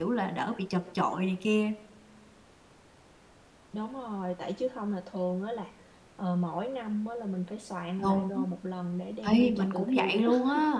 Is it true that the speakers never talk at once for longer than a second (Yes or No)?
No